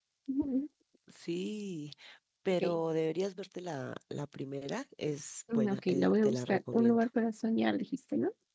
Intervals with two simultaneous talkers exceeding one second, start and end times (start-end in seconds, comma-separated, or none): 5.5-7.1